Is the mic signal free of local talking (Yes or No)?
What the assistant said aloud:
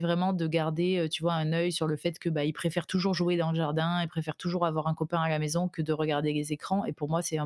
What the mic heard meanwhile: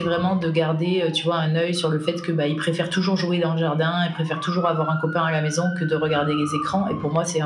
Yes